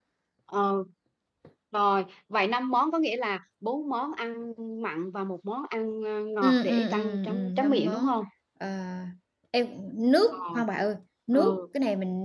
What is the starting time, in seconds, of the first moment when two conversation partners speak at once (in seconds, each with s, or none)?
6.4 s